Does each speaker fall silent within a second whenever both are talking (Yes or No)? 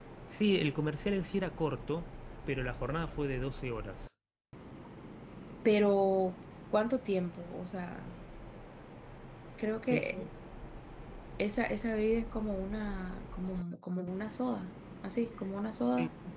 Yes